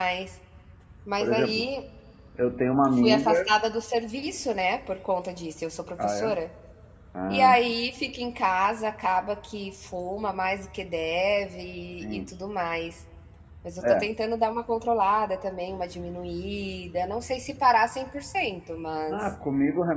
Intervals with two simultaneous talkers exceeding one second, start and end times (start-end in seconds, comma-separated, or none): none